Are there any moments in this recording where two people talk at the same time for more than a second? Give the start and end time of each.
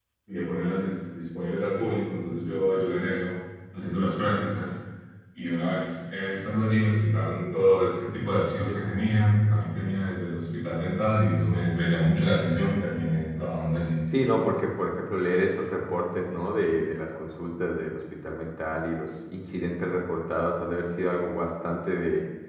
none

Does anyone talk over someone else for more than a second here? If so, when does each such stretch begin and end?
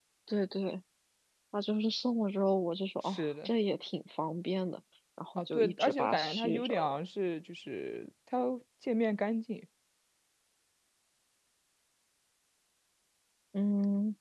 5.4-7.0

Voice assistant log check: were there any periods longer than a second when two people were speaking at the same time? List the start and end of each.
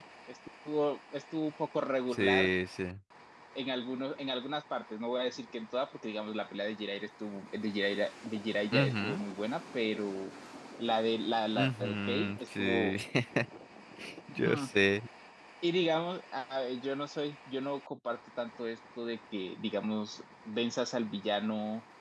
11.6-12.9

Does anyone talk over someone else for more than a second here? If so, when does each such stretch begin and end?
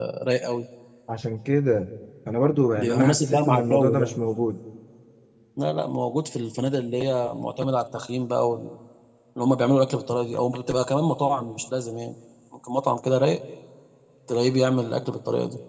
2.8-4.2

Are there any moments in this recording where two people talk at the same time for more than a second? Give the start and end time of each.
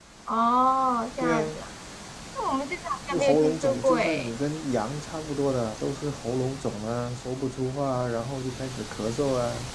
3.1-4.4

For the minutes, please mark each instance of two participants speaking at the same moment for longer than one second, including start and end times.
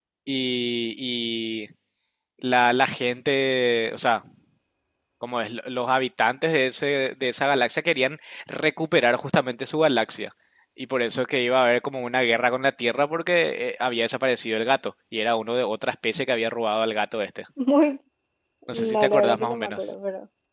18.7-19.9

